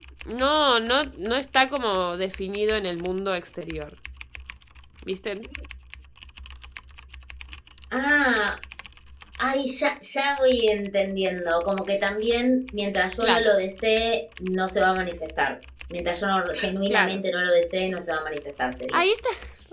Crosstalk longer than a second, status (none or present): none